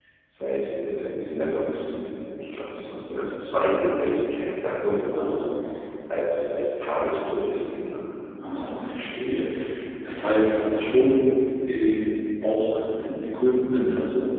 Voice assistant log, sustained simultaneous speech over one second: none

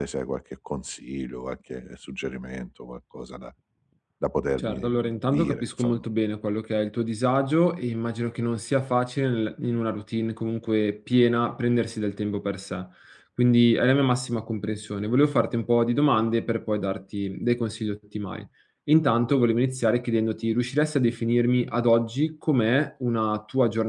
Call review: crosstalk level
present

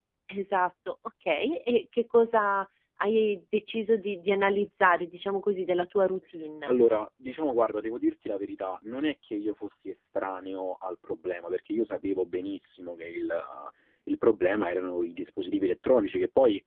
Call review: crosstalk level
none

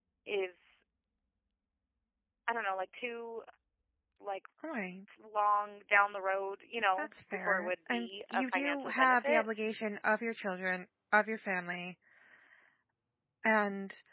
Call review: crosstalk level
present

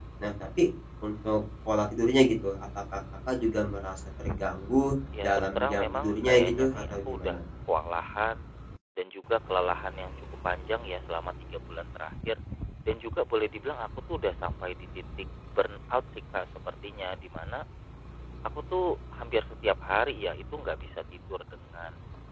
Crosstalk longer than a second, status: present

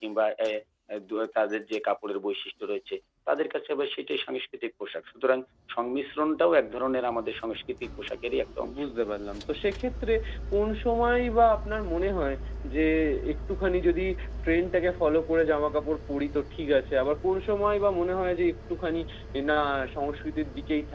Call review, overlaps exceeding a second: none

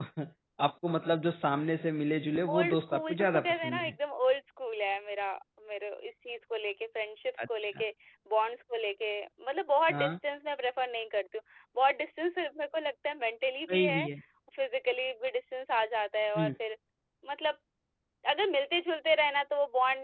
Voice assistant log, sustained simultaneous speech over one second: present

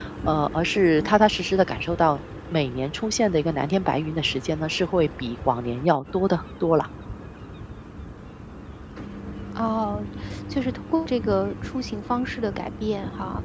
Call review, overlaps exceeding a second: none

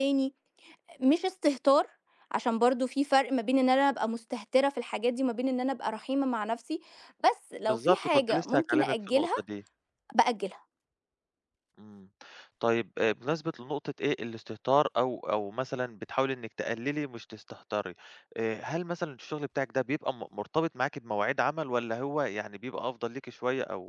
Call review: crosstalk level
present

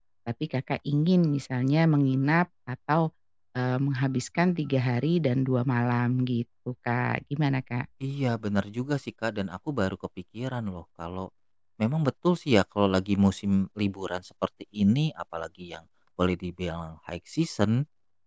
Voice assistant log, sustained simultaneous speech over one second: none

